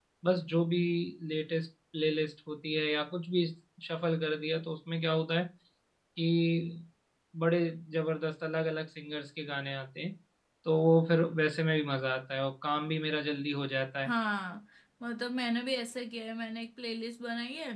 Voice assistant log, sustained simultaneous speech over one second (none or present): none